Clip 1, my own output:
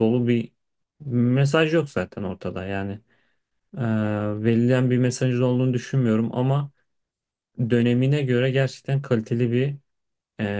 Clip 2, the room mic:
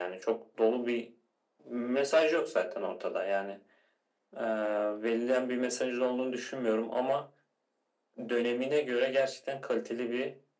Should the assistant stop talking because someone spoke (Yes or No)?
No